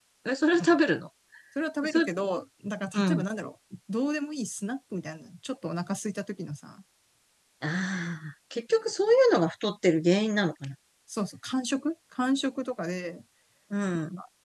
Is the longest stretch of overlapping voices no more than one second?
Yes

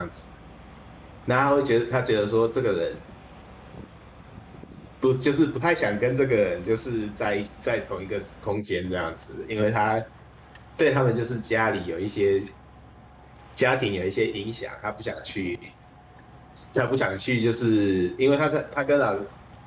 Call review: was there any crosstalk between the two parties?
No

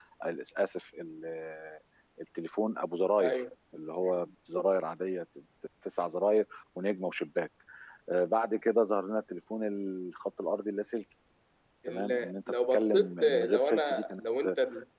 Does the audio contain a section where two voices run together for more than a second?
Yes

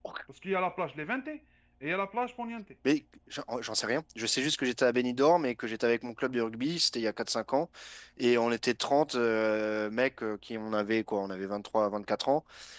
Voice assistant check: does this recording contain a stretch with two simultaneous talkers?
No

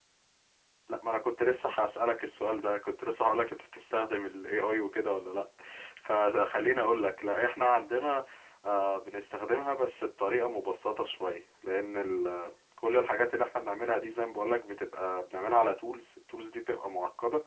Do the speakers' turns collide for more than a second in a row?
No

